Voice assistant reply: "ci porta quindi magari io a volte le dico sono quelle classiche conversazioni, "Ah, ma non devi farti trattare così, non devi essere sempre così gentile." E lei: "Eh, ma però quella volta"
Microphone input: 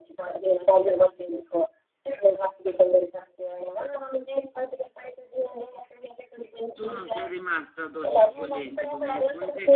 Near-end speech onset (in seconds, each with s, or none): 6.8 s